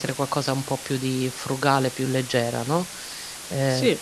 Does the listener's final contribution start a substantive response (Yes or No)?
No